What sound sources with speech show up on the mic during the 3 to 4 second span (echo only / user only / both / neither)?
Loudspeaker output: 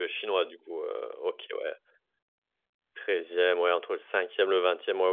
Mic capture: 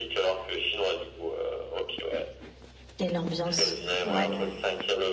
both